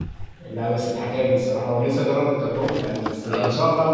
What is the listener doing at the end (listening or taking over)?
listening